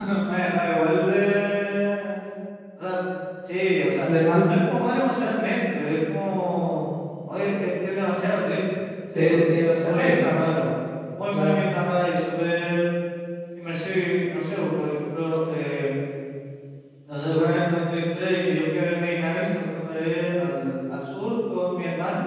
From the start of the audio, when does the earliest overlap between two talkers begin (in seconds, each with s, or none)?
9.2 s